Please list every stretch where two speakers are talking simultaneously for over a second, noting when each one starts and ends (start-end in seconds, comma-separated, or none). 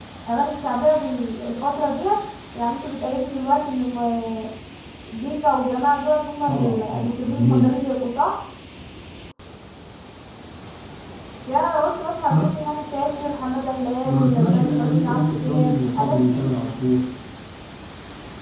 6.5-7.7, 14.0-16.5